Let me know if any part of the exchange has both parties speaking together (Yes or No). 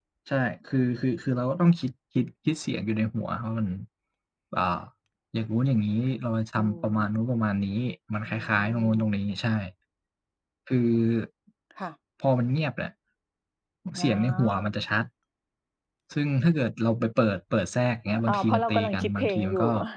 Yes